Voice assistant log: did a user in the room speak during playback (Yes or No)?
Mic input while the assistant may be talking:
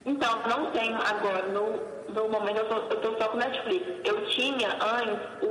No